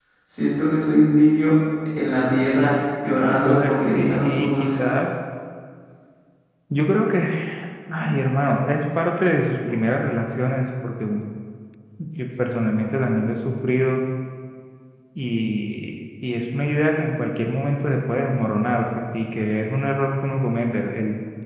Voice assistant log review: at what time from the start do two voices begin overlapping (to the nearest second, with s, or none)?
3 s